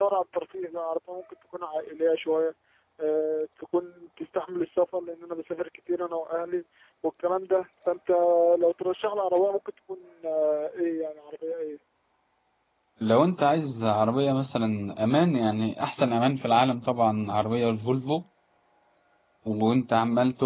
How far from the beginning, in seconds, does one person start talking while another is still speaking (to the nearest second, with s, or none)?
none